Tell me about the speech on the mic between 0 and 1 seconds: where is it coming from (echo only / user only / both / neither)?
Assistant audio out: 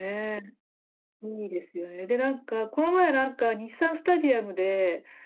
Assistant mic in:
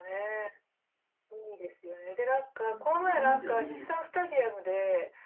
echo only